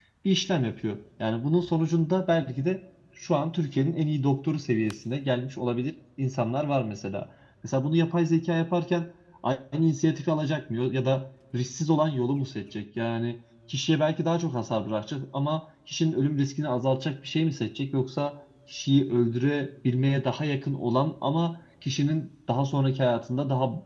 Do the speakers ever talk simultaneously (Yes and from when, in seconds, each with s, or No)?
No